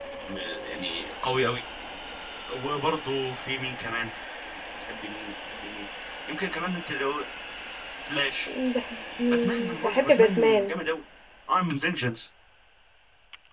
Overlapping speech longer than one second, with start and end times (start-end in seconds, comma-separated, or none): 9.3-10.7